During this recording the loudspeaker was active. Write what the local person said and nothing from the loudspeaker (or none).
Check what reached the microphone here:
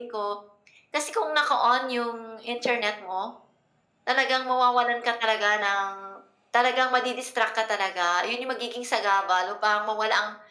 none